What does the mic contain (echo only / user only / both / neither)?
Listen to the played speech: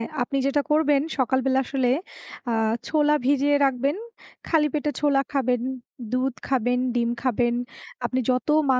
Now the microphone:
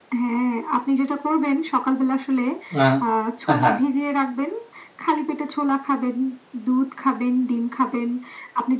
both